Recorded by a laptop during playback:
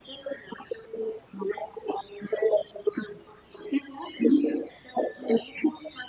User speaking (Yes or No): No